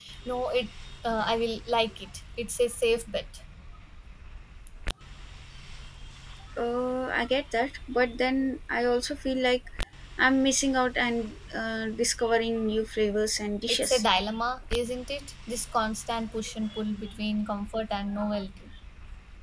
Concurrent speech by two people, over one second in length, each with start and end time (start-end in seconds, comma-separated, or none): none